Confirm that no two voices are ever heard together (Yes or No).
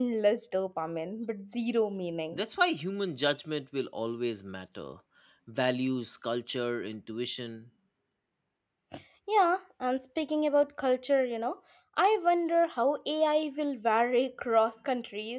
Yes